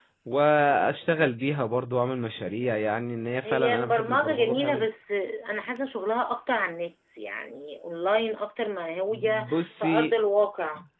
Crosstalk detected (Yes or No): Yes